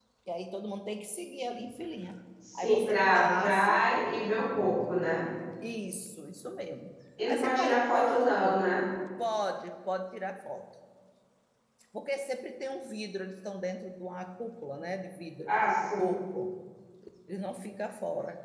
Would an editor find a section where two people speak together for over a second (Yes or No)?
Yes